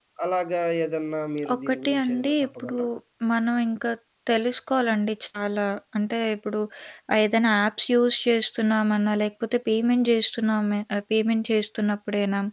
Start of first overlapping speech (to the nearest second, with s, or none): 1 s